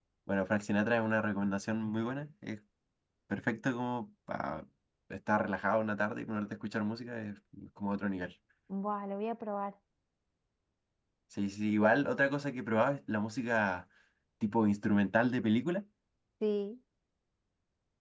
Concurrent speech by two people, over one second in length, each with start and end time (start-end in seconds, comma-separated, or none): none